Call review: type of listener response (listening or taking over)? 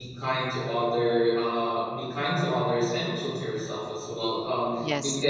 listening